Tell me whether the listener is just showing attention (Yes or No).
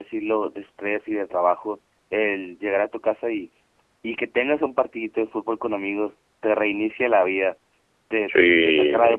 Yes